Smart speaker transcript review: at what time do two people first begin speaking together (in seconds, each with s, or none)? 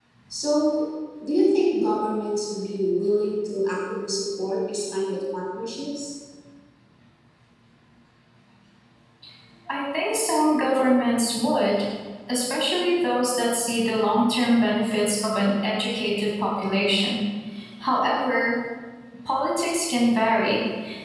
none